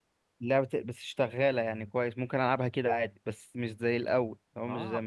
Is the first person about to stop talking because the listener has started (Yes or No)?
Yes